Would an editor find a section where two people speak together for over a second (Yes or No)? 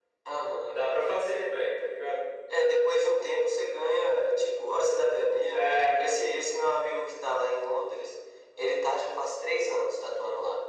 No